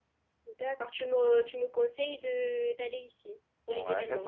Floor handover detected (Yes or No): Yes